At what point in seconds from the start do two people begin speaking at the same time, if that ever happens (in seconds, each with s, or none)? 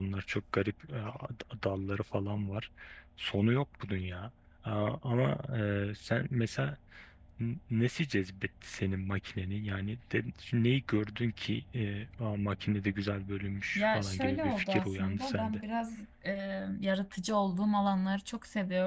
13.8 s